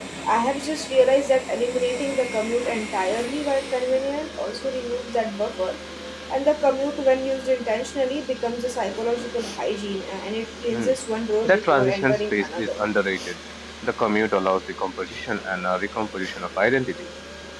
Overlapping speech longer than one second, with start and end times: 11.4-12.8

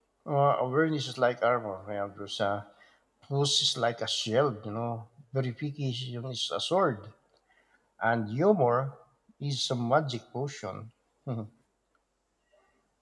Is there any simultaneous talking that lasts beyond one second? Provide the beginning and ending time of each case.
none

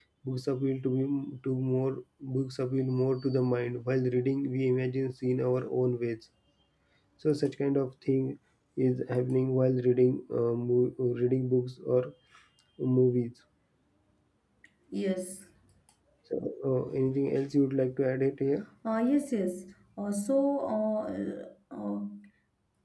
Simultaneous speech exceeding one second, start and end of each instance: none

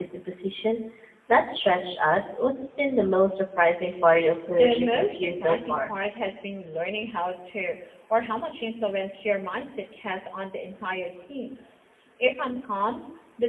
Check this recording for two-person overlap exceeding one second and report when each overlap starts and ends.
4.5-5.9

